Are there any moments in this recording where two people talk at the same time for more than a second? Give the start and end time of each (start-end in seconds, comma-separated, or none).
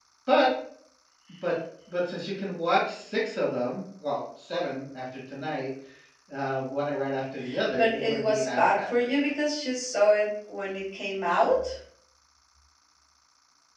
7.8-9.3